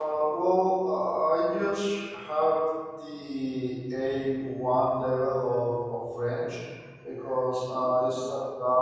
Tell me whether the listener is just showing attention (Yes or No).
Yes